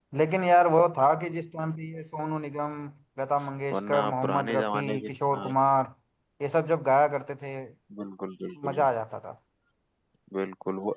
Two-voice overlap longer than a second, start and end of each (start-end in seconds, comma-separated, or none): 3.7-5.5